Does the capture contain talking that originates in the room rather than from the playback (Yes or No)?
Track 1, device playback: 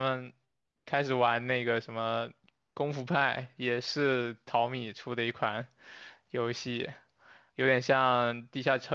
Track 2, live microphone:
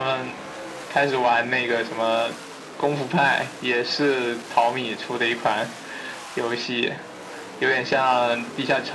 No